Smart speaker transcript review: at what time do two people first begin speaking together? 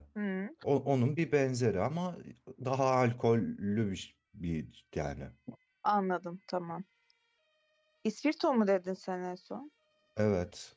none

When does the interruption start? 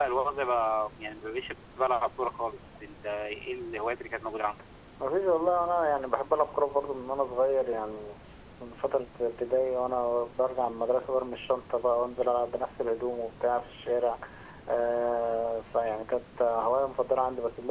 none

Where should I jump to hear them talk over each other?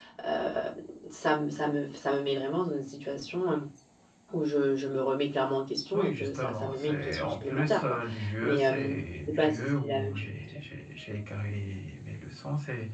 5.9 s

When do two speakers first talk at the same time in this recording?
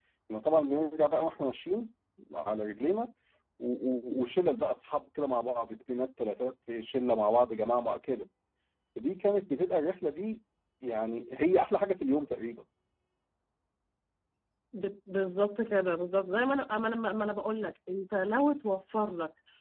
none

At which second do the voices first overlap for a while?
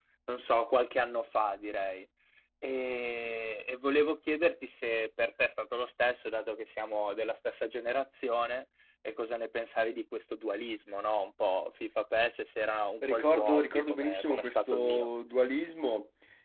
13.0 s

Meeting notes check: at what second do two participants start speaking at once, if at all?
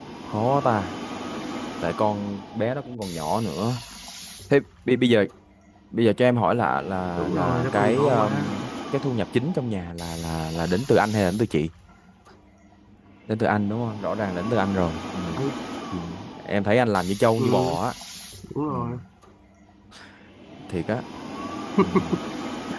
7.2 s

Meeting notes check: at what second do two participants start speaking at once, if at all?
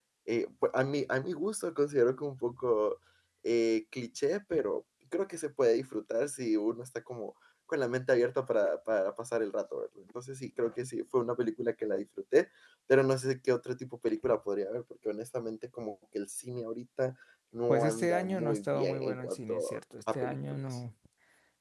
17.7 s

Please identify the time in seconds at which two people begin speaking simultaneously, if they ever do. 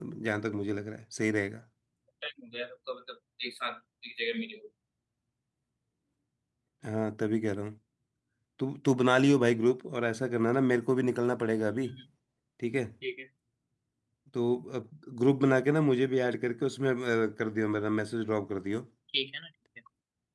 none

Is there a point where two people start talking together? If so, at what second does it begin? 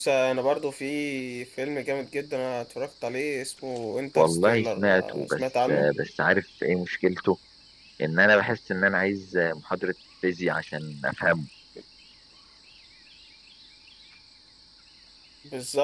4.2 s

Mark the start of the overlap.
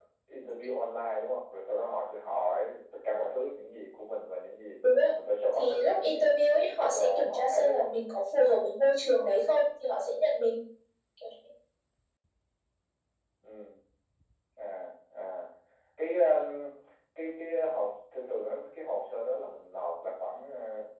5.6 s

